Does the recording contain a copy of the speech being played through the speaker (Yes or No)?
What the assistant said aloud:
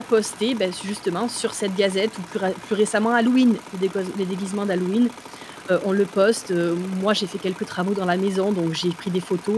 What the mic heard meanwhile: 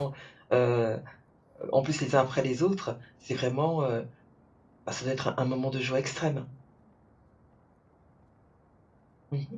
No